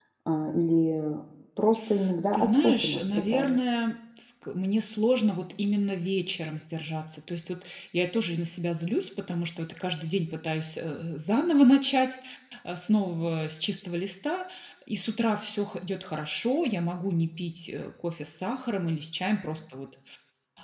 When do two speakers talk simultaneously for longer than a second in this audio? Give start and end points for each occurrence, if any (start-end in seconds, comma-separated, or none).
2.3-3.6